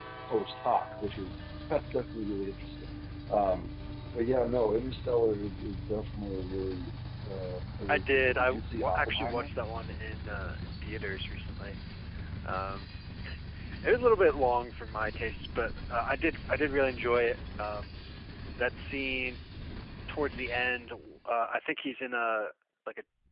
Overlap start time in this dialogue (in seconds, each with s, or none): 7.9 s